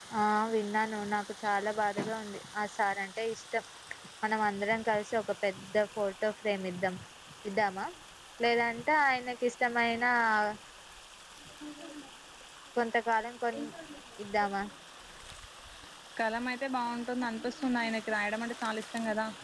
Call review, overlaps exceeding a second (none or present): none